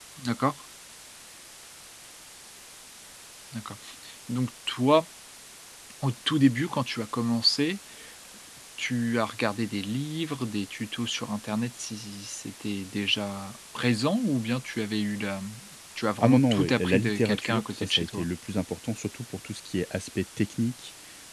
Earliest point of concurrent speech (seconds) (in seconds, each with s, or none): 16.2 s